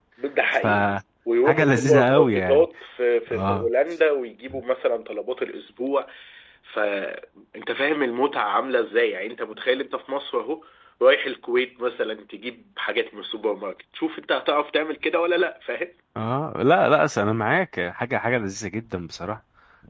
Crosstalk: present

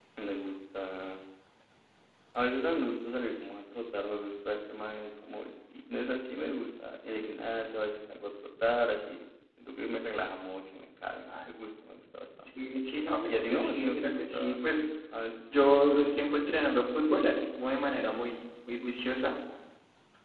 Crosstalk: present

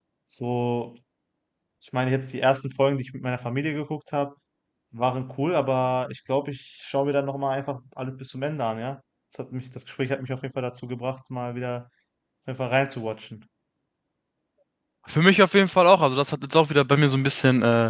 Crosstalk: none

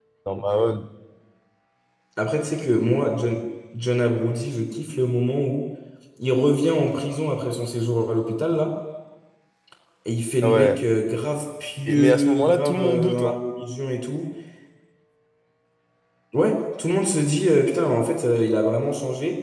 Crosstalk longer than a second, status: present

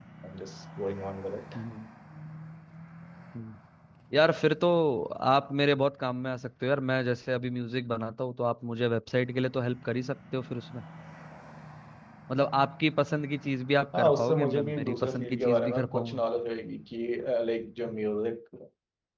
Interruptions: present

